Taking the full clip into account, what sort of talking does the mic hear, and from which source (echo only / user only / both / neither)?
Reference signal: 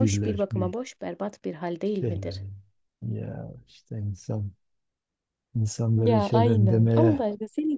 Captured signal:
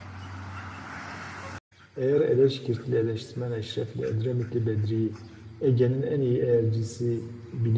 user only